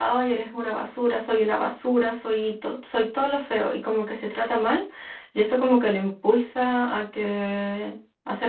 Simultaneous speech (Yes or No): No